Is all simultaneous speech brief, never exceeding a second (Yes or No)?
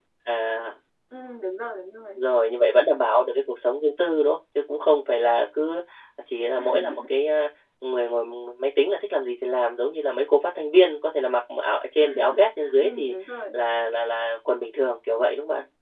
Yes